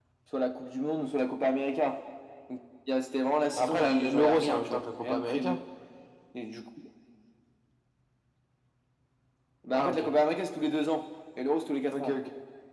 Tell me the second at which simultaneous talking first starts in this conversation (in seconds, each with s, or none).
3.6 s